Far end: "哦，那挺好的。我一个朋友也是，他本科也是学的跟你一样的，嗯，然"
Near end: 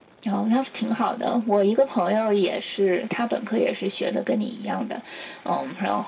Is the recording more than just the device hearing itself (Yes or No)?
No